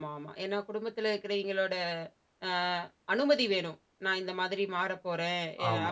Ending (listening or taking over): listening